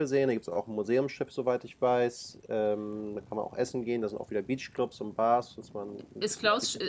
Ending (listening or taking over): taking over